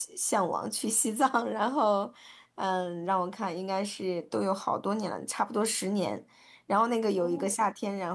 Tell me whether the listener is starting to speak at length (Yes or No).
No